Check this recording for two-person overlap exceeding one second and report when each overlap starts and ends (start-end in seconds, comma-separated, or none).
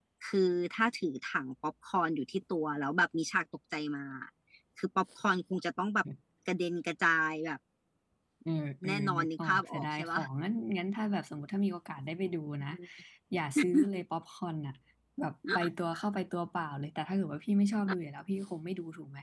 8.8-10.2